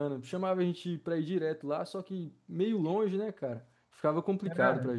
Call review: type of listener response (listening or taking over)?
taking over